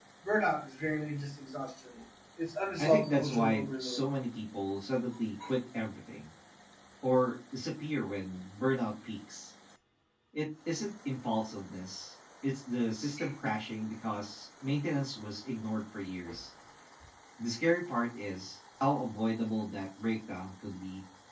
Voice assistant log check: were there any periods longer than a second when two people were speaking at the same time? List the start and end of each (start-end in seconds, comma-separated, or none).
2.8-4.0